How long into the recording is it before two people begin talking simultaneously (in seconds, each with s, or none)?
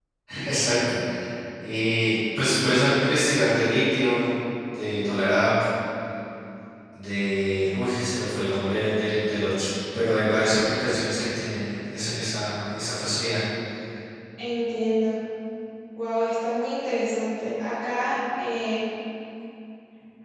none